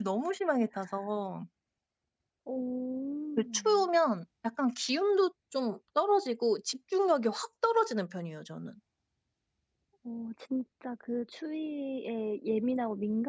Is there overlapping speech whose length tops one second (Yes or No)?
No